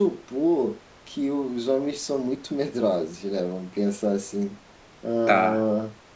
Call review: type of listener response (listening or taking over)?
listening